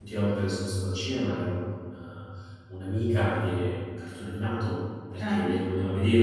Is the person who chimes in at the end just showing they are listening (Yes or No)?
Yes